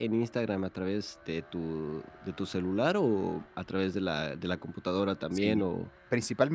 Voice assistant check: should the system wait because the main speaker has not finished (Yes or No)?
No